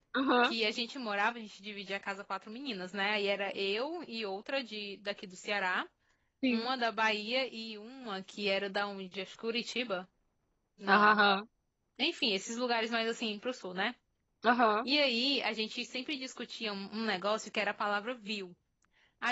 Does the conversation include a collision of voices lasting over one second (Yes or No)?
No